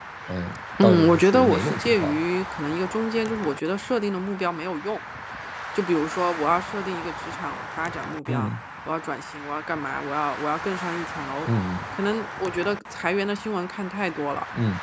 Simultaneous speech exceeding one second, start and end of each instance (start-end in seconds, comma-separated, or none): 0.8-2.2